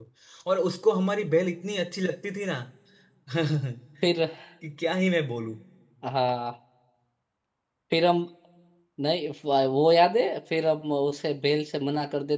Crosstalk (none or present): none